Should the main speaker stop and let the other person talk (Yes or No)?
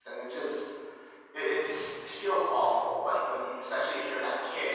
No